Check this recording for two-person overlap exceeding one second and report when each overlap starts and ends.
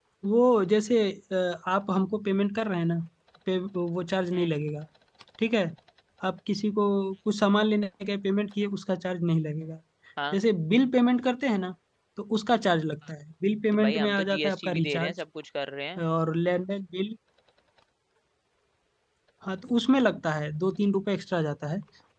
13.7-15.1

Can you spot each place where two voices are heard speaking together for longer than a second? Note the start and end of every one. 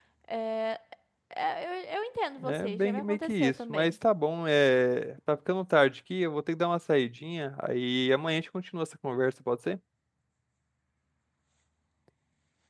2.4-4.0

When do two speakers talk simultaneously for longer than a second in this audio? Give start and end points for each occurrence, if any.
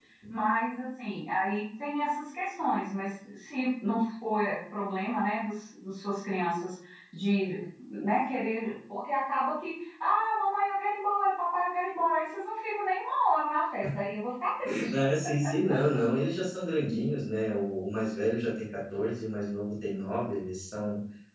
none

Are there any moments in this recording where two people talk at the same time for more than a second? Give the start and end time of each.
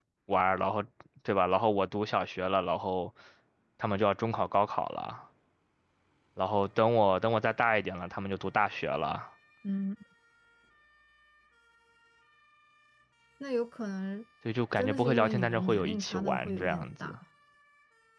14.8-17.1

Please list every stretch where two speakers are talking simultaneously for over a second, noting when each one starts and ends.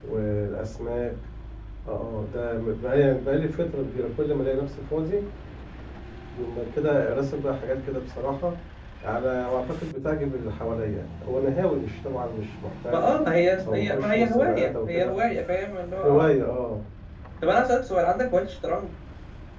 13.7-15.2

